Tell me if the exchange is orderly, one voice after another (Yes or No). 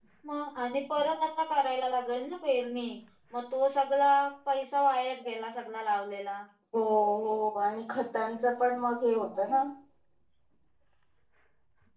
Yes